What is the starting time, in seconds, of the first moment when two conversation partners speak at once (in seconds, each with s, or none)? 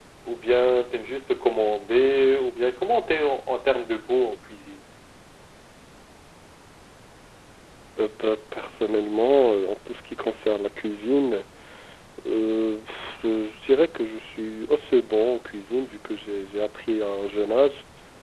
none